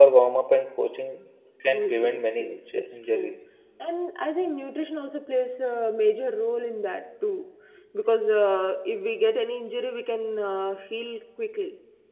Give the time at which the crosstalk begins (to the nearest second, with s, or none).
2 s